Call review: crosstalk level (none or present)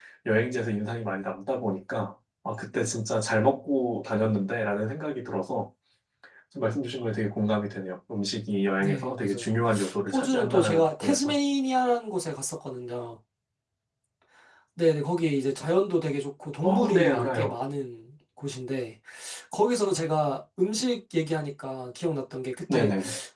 present